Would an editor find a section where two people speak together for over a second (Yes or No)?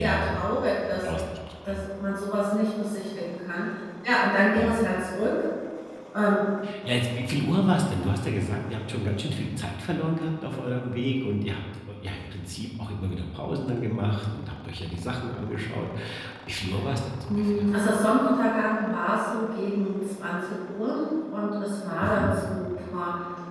No